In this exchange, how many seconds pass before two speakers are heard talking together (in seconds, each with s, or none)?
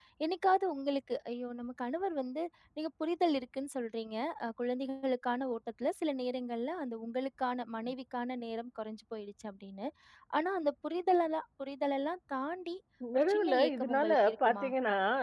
13.2 s